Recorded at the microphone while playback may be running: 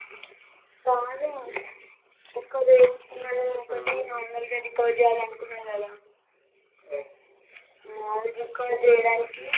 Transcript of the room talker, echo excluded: హ్మ్

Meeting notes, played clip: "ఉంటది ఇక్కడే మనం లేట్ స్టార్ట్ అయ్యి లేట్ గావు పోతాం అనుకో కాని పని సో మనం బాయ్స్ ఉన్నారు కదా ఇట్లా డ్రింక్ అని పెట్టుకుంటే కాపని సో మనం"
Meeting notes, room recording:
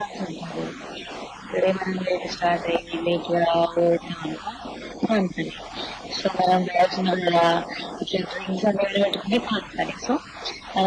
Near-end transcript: none

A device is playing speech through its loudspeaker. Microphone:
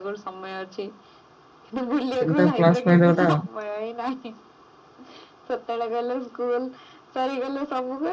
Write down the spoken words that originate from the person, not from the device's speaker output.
ସେଟା ତା ପ୍ଲସ୍ ପଏଣ୍ଟ ଗୋଟେ ଆଉ।

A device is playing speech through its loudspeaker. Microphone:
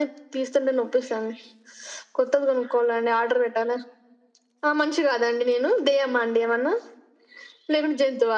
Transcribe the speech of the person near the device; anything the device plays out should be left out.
none

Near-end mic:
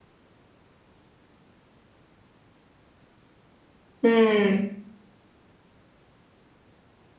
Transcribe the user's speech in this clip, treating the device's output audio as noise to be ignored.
हम्म

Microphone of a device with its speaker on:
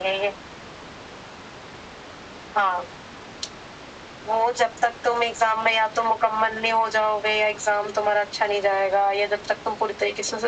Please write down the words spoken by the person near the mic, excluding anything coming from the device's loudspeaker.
none

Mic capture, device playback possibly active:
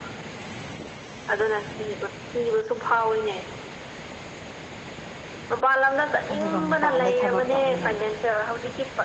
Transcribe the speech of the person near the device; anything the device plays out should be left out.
ꯑꯗꯨꯒ ꯃꯄꯥꯟꯗ ꯊꯕꯛ ꯇꯧꯅꯤꯡꯉꯥꯏ

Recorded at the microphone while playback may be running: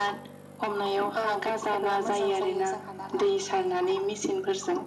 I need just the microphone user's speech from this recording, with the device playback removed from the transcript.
none

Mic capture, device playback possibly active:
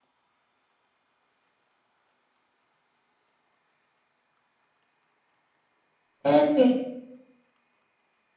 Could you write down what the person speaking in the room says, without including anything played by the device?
সেইটোৱে।

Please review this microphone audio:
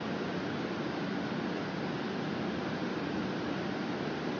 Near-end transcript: none

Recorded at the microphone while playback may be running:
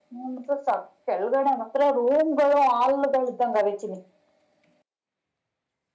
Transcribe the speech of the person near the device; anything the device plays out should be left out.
none

